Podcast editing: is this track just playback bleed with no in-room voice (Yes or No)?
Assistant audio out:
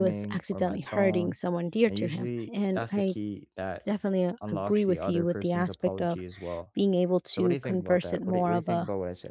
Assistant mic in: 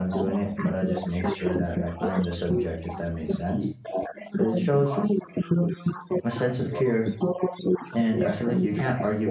No